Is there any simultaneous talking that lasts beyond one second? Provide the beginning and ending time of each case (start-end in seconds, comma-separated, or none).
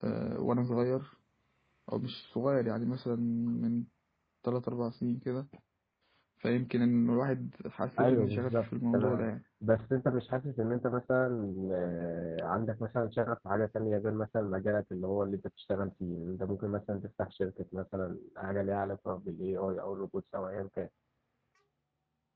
8.0-9.3